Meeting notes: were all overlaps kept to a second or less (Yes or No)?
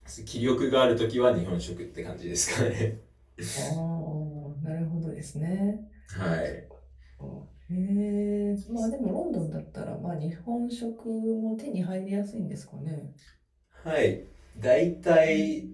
Yes